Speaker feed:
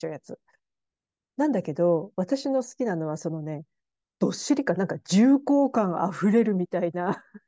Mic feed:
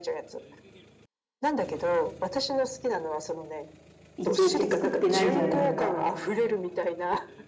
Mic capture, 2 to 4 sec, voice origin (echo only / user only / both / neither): echo only